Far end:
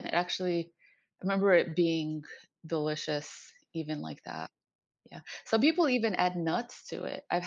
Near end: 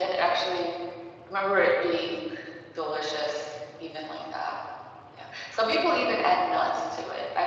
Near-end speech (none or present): none